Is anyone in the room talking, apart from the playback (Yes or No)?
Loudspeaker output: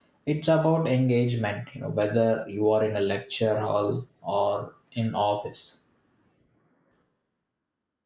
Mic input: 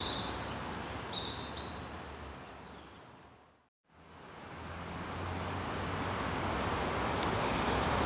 No